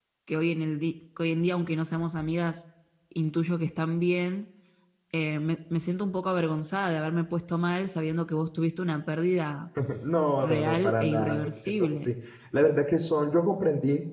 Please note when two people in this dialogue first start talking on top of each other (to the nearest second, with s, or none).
10 s